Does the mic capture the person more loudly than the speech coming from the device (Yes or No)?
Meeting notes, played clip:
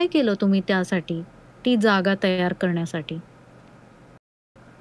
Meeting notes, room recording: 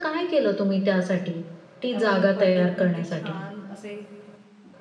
No